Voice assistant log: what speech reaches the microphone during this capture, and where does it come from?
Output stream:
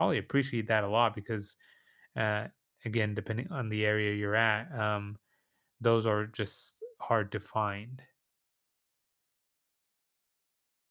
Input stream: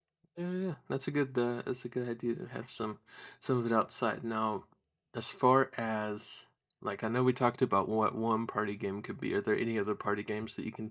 user only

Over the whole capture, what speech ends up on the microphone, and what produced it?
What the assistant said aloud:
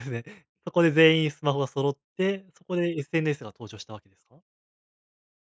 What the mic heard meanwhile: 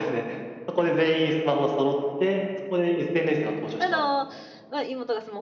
both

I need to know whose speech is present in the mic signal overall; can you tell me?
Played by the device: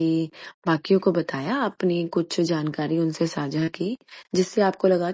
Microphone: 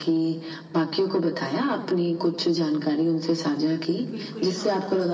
both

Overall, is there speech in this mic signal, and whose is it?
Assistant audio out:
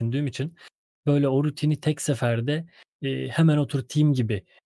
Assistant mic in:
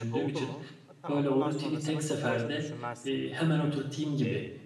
both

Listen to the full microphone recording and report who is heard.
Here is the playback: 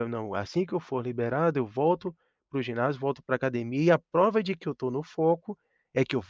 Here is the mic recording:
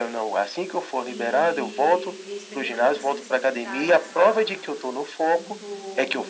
both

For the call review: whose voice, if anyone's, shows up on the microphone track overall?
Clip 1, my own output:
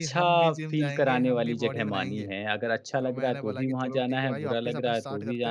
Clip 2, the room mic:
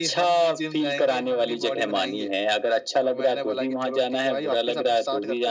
echo only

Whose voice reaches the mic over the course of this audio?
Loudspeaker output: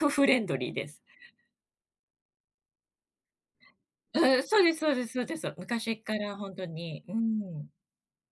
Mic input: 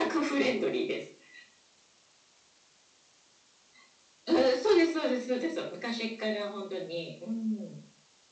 echo only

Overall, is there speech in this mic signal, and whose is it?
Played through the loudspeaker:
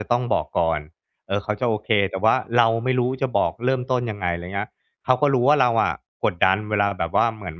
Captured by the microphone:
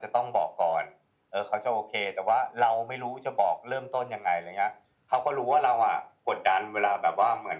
echo only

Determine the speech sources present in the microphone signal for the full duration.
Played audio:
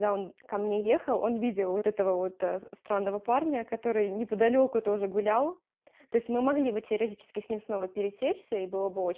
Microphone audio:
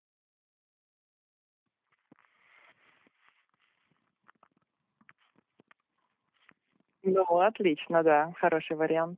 user only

